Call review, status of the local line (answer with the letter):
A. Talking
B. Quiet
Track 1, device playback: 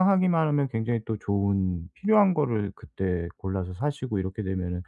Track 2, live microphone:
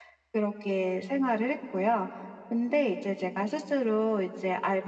A